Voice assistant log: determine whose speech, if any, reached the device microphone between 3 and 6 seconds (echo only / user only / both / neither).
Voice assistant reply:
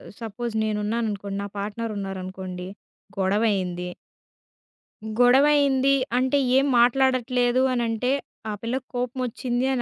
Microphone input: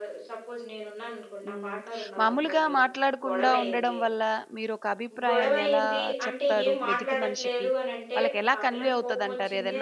both